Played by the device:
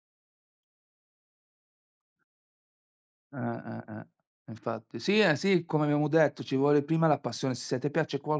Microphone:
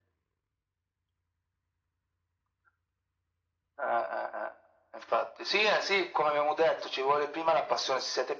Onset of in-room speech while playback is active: none

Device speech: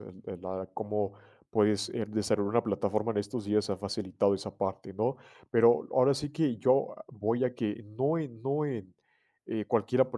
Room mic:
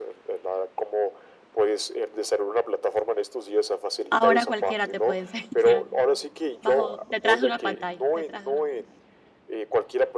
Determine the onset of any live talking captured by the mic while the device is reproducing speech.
4.1 s

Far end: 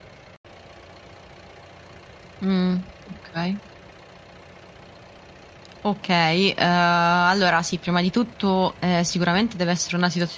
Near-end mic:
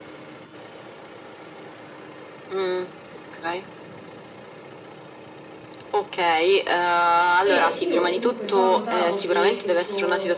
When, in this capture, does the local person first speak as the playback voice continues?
7.4 s

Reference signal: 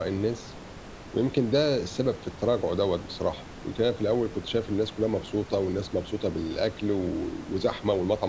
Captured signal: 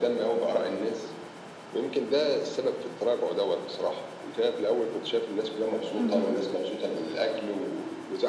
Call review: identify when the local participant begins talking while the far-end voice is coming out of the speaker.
6.0 s

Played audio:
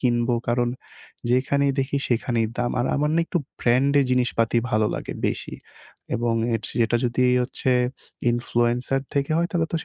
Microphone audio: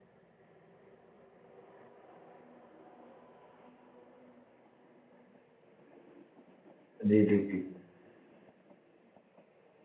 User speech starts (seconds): 7.1 s

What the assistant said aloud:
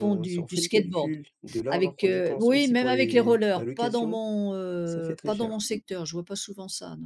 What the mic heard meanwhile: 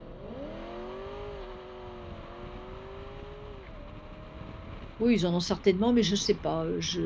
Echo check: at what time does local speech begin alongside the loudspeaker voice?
5.0 s

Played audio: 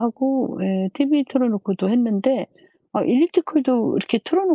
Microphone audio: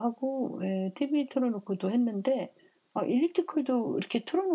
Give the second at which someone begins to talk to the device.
none

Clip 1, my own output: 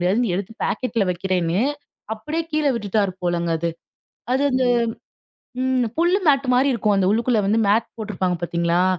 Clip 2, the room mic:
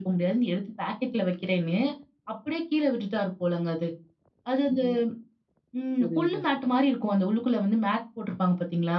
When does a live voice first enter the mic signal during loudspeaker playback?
6.0 s

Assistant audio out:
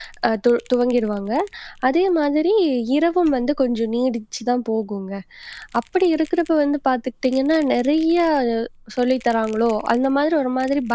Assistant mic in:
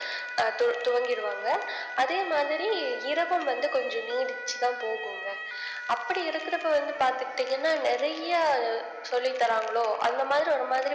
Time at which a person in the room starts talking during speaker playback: none

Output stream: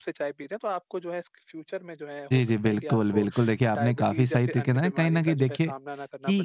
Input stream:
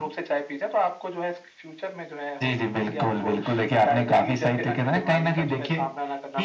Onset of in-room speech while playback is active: none

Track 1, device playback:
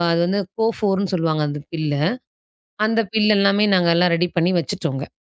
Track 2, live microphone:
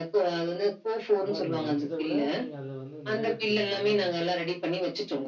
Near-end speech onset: 1.2 s

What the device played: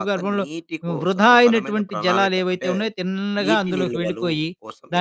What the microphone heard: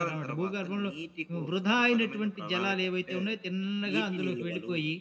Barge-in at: none

